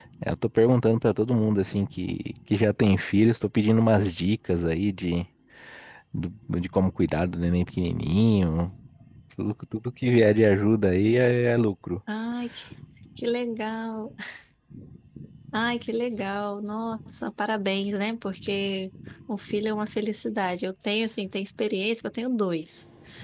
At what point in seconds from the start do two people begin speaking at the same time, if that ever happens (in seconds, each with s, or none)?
none